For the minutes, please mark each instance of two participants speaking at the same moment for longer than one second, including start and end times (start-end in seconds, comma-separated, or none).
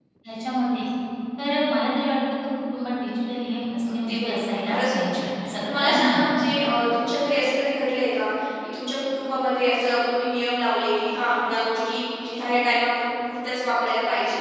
3.9-6.3